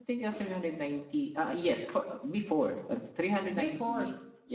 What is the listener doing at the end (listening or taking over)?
listening